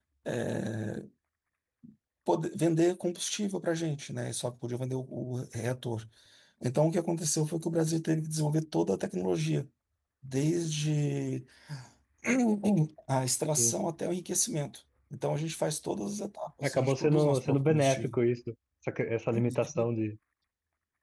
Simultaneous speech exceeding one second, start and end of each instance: 16.6-18.1

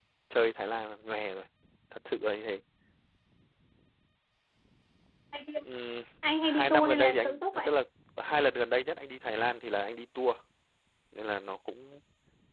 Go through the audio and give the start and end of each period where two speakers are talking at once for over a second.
6.5-7.7

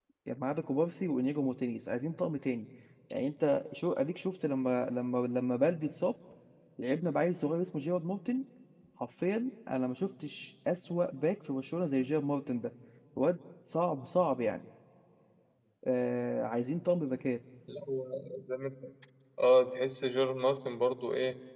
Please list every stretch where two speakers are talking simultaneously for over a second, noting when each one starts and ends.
none

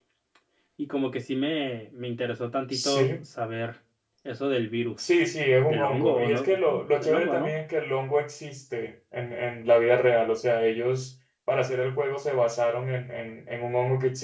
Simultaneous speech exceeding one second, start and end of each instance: 5.7-7.6

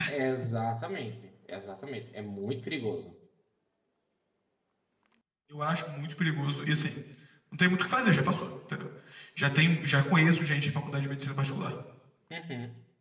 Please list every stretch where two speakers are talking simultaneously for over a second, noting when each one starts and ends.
none

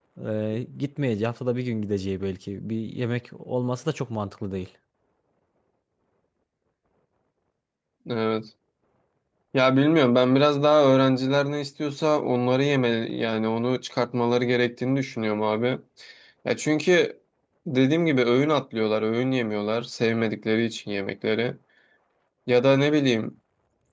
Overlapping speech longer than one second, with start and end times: none

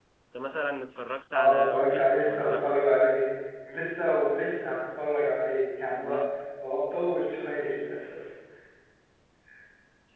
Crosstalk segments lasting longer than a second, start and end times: 1.4-2.6

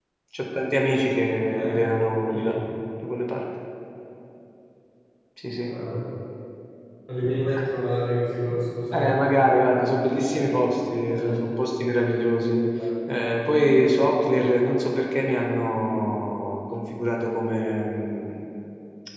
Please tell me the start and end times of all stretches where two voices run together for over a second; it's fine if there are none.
none

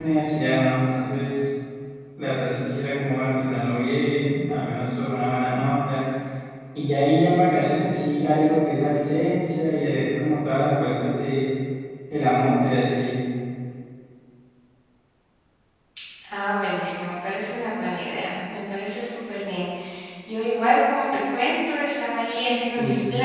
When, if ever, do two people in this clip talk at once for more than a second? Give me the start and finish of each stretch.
none

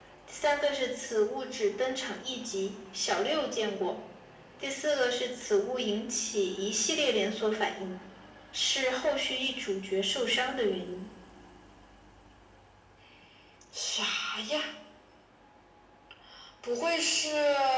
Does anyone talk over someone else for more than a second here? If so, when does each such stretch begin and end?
none

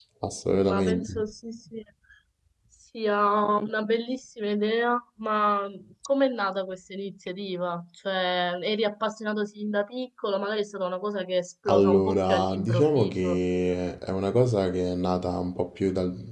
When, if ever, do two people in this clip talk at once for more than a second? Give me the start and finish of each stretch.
11.7-13.4

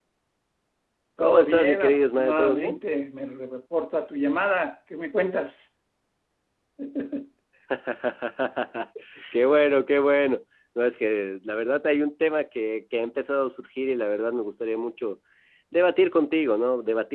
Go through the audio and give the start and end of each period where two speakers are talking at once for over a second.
1.2-2.8

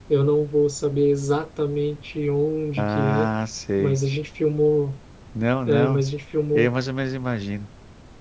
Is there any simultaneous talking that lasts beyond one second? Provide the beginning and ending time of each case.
none

